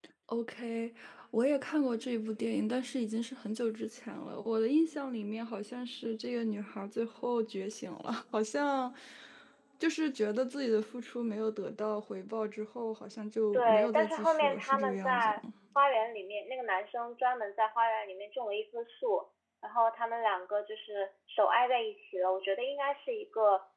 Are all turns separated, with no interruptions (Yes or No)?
No